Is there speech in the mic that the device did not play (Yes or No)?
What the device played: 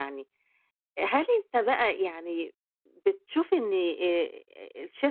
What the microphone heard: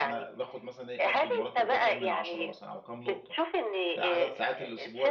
Yes